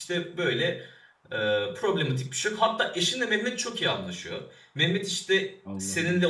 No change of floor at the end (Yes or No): Yes